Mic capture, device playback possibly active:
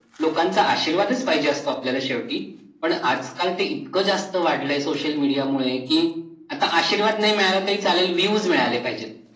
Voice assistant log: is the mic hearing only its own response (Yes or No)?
Yes